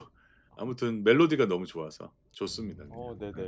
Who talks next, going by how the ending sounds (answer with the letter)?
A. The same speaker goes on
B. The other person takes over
B